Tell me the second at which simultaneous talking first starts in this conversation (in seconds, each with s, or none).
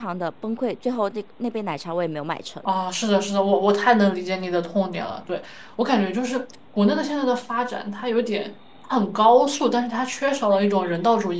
none